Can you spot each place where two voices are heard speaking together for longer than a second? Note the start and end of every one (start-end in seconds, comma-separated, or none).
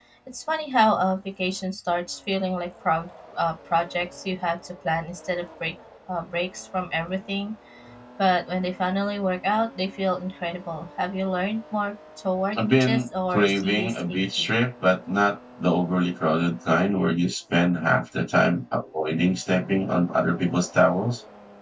12.6-14.5